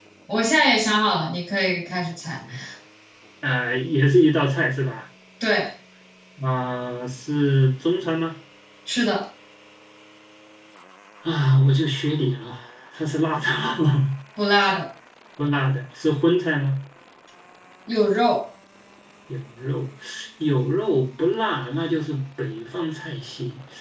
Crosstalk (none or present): none